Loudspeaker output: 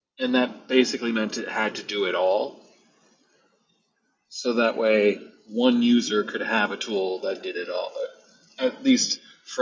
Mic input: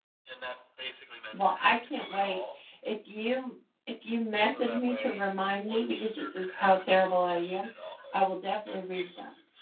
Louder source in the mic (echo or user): user